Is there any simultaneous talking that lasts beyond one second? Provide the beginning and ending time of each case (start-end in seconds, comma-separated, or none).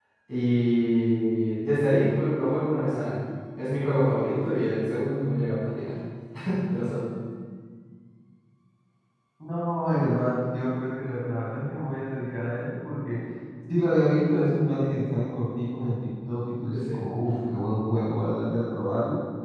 none